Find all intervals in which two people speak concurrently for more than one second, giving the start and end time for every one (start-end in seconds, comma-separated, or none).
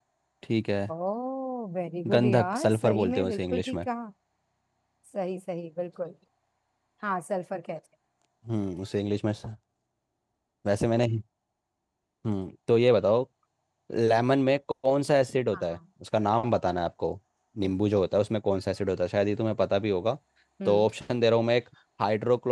2.1-3.8